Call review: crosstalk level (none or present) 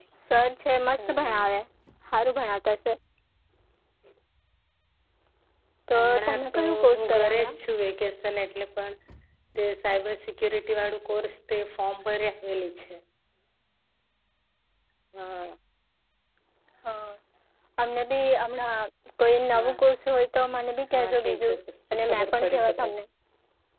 present